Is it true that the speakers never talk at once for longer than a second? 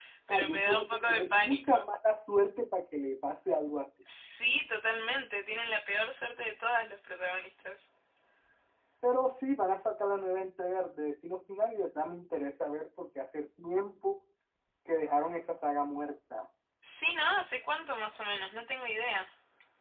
No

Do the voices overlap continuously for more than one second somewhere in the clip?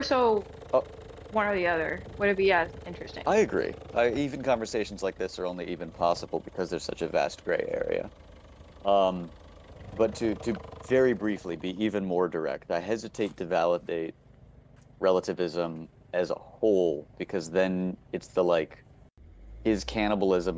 No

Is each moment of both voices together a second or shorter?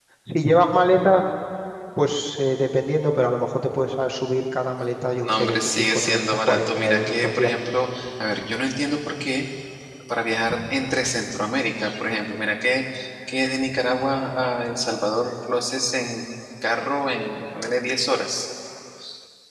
No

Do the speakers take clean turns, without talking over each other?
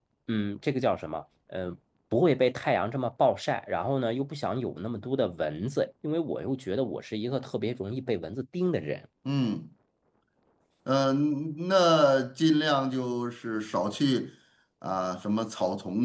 Yes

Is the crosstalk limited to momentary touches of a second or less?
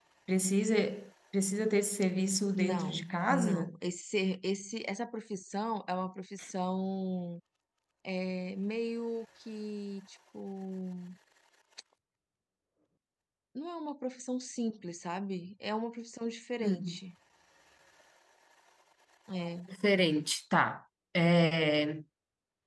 No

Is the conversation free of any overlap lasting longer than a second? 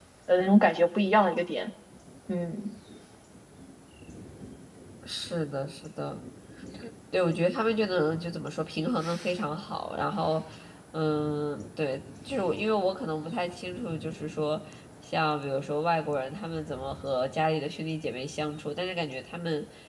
Yes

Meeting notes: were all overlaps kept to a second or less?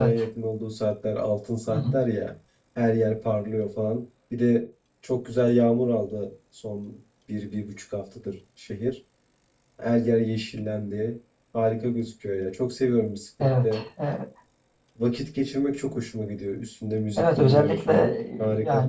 No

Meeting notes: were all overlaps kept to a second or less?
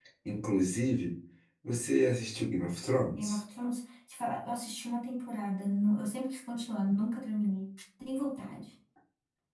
Yes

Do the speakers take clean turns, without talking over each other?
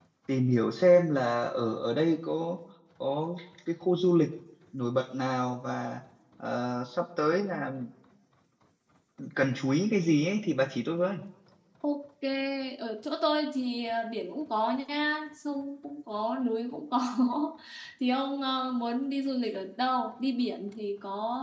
Yes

